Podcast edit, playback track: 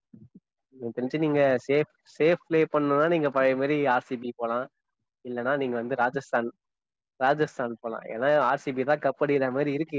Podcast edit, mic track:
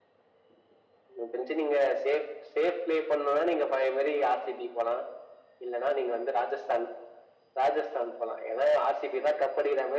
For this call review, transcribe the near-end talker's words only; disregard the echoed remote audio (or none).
none